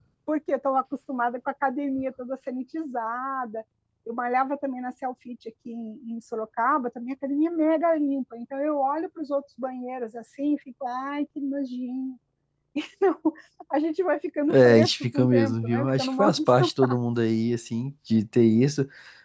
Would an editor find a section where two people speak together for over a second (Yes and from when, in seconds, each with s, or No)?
Yes, from 14.5 s